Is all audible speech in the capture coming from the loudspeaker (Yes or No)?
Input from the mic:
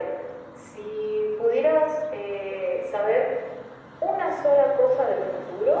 Yes